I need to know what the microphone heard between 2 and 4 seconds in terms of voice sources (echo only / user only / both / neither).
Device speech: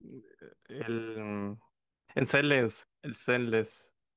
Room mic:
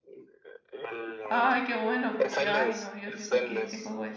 both